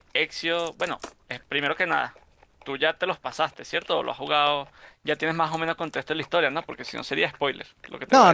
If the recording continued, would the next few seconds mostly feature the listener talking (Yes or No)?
Yes